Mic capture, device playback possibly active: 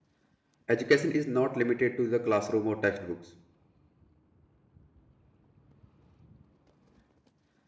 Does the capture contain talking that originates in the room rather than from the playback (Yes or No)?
Yes